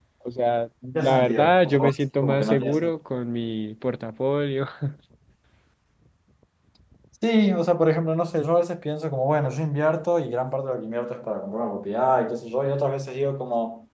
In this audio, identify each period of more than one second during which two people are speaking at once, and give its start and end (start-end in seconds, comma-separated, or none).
1.0-2.9